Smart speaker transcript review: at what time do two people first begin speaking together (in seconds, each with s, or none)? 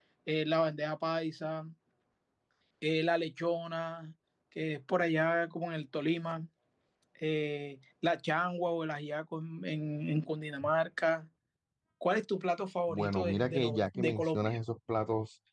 12.9 s